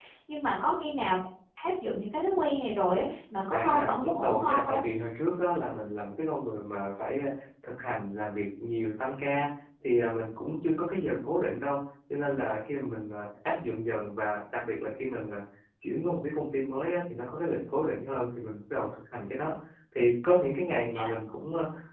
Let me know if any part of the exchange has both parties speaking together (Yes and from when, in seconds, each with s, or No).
Yes, from 3.5 s